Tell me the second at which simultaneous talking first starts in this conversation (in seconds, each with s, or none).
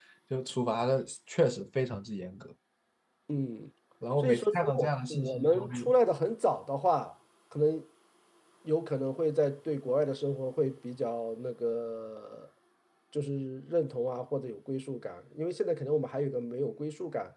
4.2 s